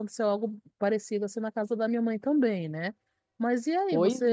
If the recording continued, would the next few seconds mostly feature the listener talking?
No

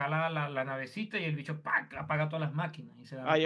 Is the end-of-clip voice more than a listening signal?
Yes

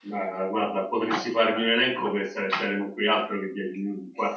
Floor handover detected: No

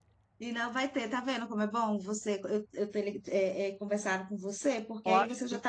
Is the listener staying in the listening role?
Yes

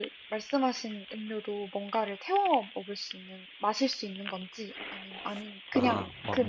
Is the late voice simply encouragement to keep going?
No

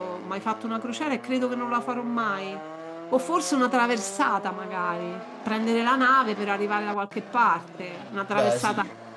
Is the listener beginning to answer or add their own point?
No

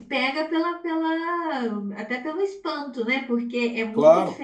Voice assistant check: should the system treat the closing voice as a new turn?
No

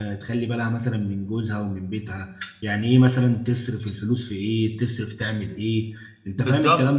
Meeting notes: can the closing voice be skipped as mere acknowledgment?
No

